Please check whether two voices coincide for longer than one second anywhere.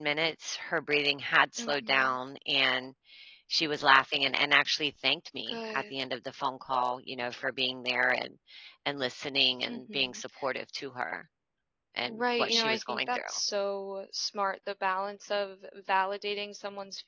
Yes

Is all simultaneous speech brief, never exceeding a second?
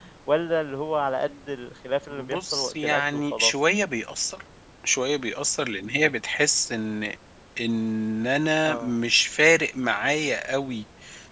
No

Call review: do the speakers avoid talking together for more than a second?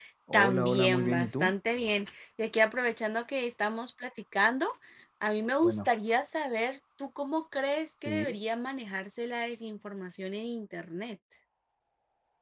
No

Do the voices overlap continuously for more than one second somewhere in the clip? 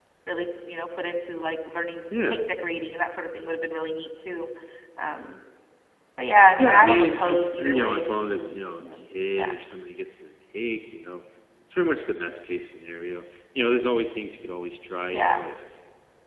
Yes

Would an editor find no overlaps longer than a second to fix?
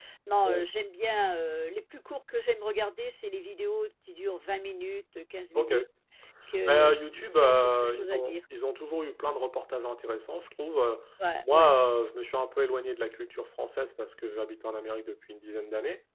No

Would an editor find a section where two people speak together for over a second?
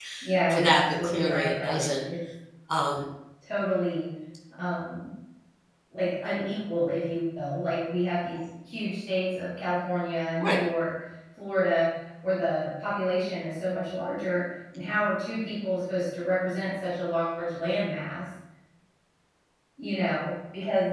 Yes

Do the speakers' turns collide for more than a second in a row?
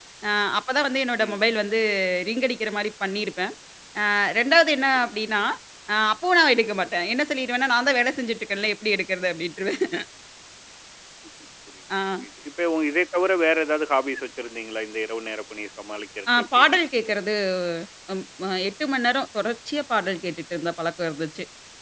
No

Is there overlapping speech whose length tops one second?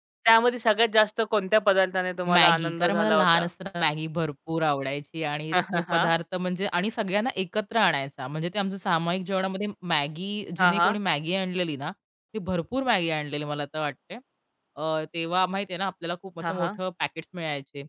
Yes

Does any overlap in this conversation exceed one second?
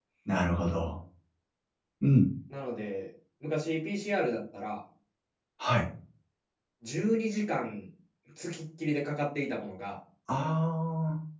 No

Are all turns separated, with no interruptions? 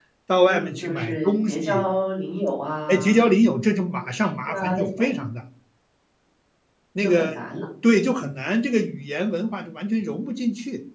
No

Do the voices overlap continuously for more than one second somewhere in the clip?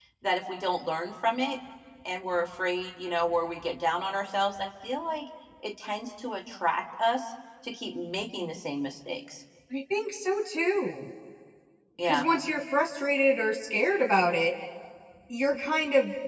No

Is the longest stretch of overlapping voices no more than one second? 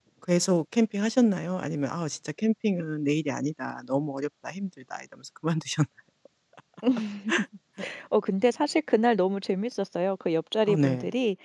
Yes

